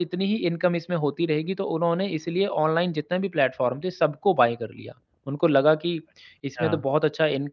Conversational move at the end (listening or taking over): listening